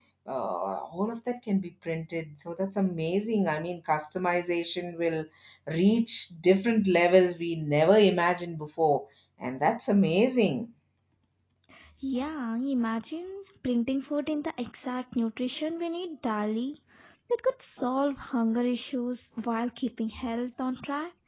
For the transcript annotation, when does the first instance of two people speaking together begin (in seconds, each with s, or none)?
none